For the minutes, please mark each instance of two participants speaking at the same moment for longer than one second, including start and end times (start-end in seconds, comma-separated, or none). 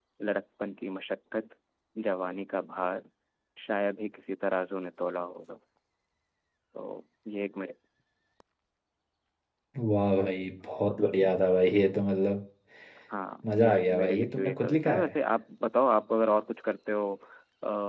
13.5-15.1